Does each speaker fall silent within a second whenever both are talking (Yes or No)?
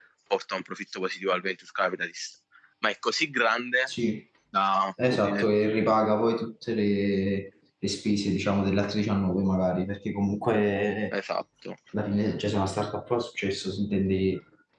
Yes